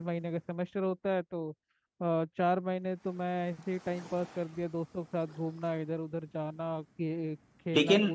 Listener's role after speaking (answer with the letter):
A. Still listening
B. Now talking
B